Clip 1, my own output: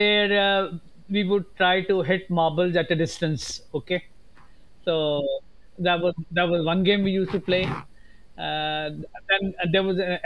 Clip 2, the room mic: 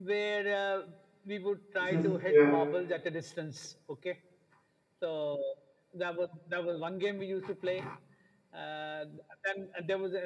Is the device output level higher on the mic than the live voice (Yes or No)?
No